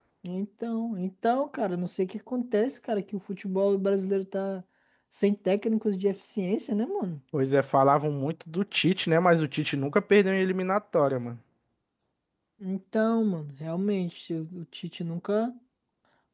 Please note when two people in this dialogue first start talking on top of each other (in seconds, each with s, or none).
none